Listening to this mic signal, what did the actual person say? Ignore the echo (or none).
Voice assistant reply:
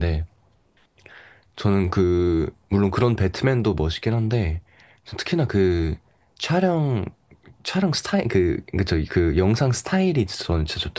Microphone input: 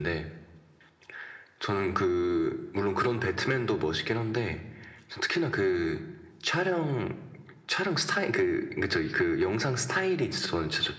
none